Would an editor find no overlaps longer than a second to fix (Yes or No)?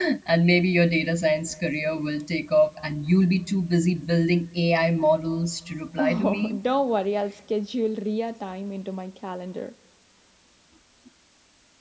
Yes